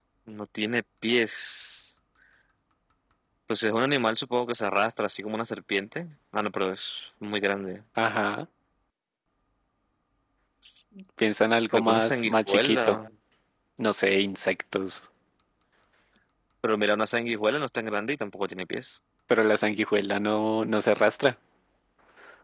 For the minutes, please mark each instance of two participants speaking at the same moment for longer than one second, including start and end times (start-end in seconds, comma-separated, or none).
11.7-13.0